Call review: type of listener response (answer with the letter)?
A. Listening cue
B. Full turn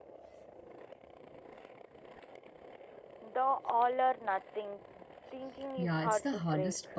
B